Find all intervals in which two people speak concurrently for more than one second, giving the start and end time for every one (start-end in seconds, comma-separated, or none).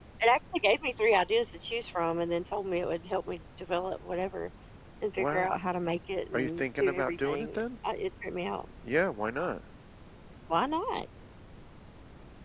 6.3-7.6